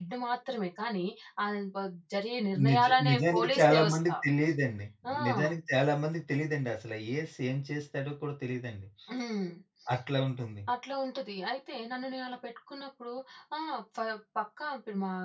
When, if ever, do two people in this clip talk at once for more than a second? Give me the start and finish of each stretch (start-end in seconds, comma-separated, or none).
2.7-4.0